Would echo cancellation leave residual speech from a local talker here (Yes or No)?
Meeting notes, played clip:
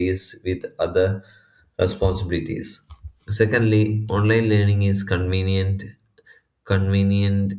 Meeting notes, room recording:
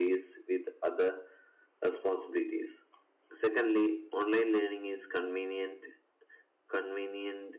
No